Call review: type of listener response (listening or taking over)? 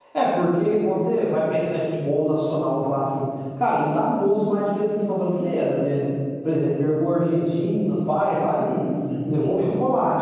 listening